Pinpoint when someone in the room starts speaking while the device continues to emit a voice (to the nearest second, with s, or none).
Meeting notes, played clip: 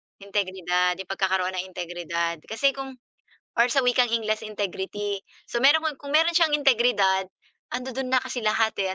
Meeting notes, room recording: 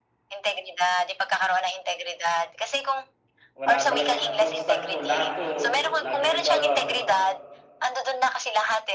4 s